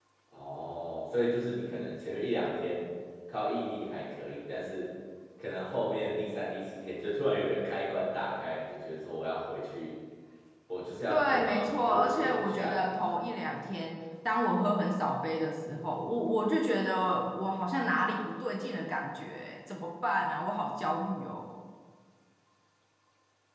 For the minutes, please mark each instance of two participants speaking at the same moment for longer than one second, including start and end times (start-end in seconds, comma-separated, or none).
11.1-13.1